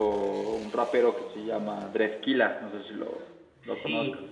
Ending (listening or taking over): taking over